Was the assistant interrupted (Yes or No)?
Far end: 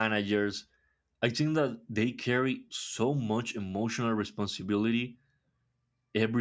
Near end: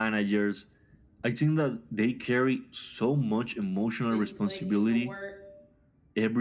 Yes